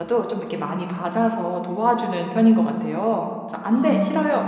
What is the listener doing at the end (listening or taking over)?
listening